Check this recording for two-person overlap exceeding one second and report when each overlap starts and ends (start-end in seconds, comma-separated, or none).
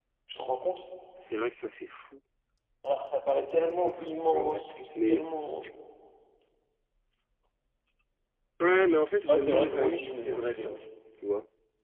3.6-5.2, 9.3-10.7